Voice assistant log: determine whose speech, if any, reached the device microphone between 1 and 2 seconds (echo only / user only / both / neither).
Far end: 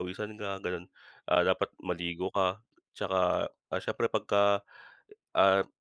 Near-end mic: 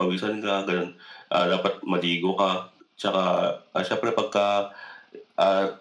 echo only